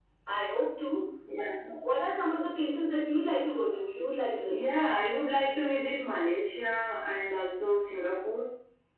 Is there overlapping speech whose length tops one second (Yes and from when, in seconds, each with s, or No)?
No